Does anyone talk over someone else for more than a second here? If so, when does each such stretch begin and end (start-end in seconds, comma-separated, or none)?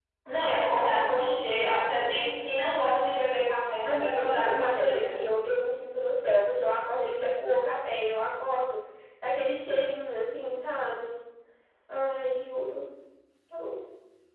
3.8-5.2